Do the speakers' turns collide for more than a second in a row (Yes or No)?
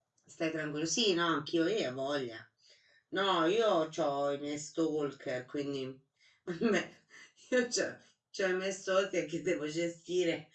No